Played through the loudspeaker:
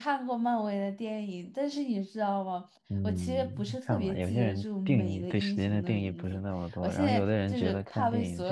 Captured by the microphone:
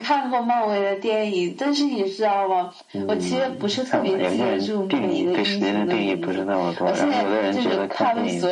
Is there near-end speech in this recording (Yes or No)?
No